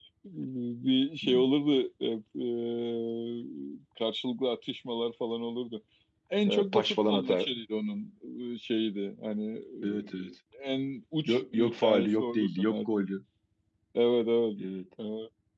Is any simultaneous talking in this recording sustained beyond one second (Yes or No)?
Yes